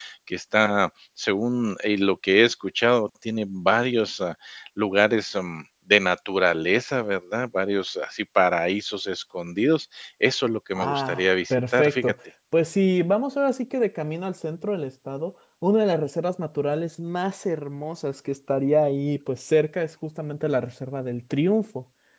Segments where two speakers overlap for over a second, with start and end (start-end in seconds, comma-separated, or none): 10.8-12.1